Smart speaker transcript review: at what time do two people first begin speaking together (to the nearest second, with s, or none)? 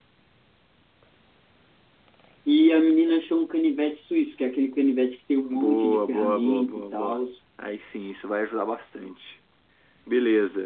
5 s